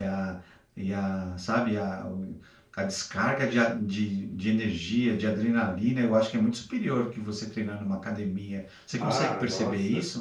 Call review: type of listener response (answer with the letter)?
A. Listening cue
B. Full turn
B